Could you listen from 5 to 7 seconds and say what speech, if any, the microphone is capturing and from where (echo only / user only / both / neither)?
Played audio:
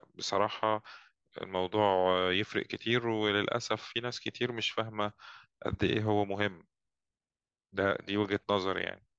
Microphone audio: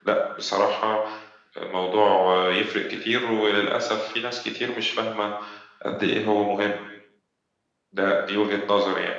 echo only